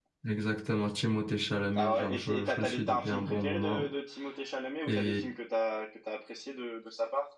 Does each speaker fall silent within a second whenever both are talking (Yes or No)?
No